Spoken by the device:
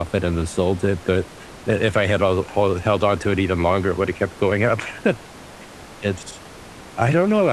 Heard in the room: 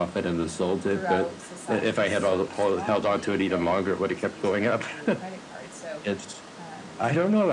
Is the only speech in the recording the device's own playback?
No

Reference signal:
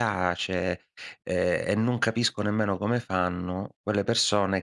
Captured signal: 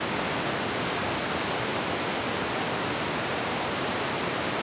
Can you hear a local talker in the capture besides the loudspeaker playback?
No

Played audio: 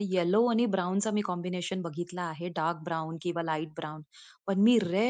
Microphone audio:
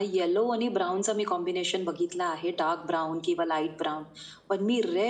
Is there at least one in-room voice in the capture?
No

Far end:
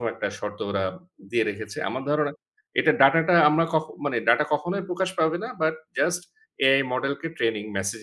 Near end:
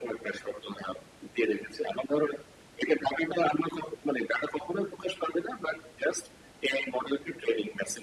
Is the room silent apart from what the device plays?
Yes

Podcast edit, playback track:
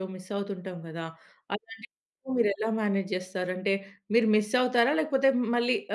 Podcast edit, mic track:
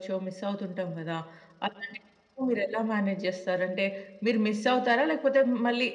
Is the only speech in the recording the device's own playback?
Yes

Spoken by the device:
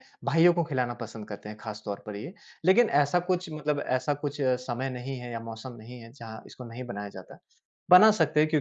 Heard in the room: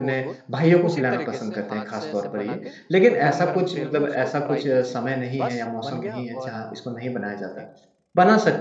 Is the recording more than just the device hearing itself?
Yes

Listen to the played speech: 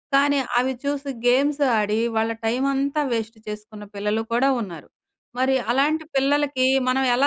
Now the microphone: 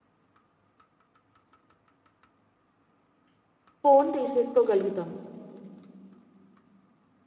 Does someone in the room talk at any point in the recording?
Yes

